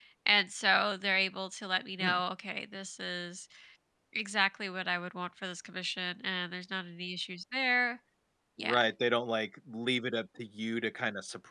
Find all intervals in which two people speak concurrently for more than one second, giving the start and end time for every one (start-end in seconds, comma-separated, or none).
none